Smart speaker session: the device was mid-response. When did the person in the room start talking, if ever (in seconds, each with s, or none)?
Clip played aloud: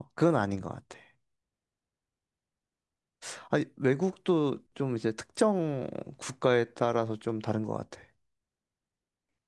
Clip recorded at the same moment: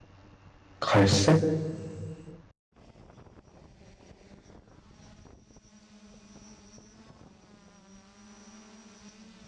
0.8 s